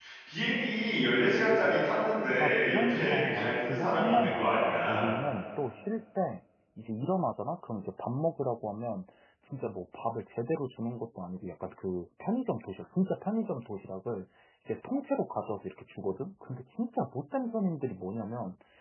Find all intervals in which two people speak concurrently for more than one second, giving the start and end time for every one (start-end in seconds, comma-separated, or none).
2.4-5.1